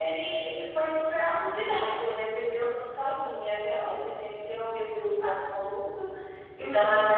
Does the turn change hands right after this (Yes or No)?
No